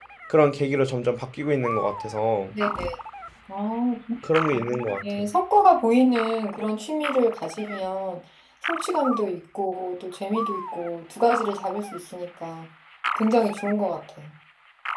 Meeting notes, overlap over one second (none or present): none